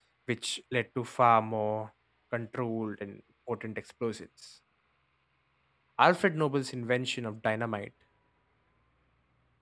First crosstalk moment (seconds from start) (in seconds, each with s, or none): none